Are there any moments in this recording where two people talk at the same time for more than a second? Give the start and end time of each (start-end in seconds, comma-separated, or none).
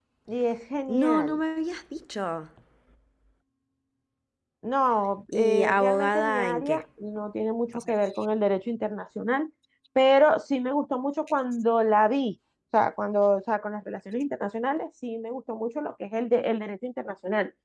5.3-6.8